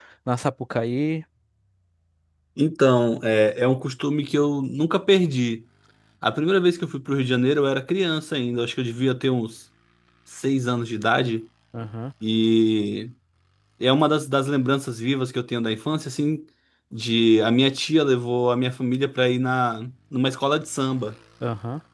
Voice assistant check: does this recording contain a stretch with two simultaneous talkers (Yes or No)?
No